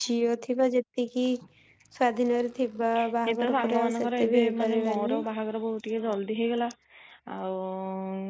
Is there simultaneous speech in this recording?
Yes, from 3.3 s

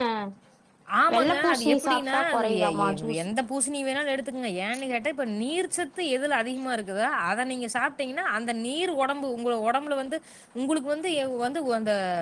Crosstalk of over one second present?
Yes, from 1.1 s

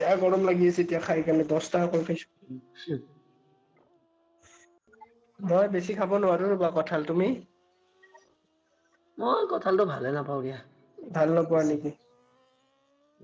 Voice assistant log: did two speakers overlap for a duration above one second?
No

